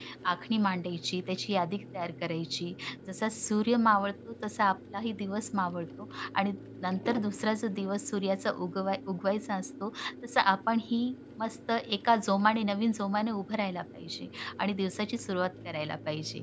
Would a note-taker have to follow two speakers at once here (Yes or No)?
No